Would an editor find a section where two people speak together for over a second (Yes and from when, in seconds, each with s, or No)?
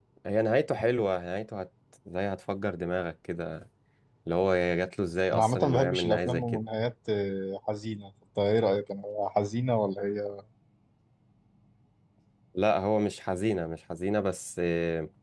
Yes, from 5.3 s